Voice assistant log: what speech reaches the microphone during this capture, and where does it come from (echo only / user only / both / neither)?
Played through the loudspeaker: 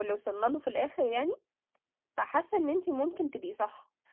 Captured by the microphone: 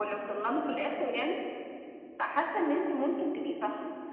echo only